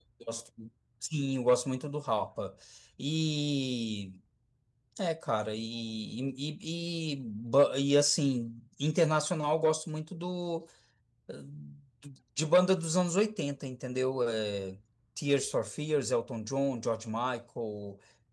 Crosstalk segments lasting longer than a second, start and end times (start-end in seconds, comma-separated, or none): none